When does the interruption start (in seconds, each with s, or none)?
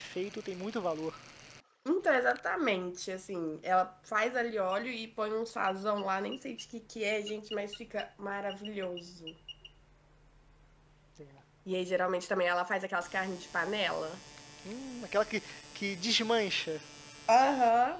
none